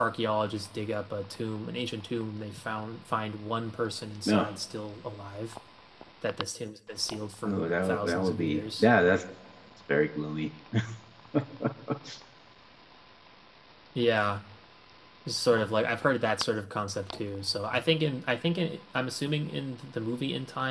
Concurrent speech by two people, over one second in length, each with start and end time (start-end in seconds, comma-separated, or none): 7.5-8.9